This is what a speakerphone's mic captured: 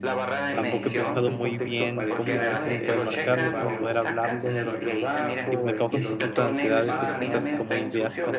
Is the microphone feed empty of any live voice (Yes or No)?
No